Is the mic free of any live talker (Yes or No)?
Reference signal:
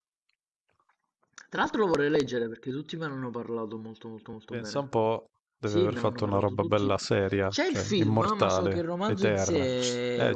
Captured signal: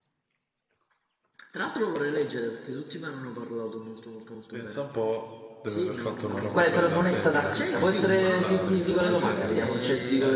No